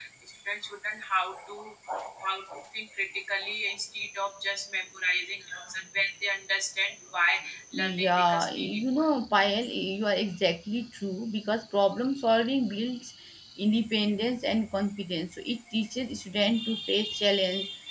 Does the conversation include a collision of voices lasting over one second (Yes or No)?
Yes